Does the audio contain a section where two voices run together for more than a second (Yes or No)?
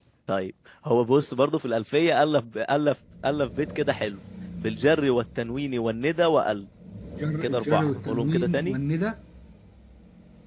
Yes